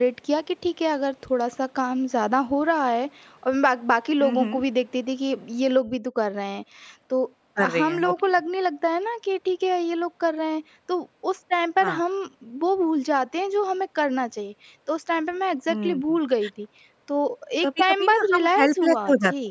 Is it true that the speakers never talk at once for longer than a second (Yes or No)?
No